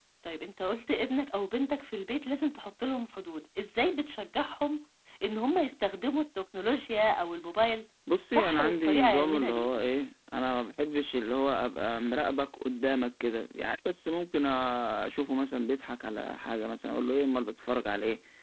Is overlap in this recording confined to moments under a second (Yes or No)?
No